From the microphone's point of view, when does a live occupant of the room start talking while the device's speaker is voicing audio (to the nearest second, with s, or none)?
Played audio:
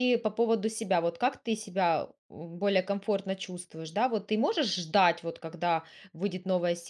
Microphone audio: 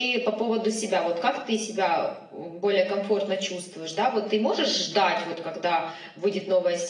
none